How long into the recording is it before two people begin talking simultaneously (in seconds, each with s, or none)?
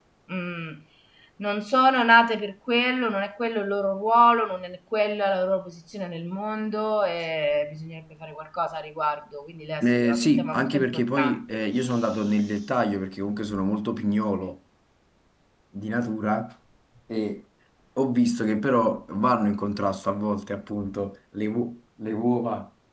9.8 s